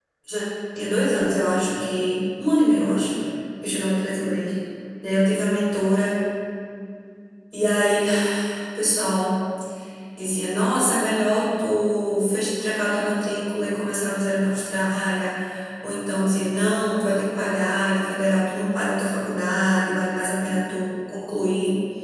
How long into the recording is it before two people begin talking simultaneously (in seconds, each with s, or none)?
none